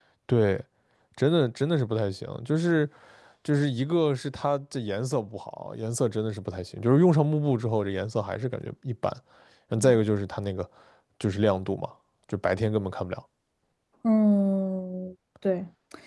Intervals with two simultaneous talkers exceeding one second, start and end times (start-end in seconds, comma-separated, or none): none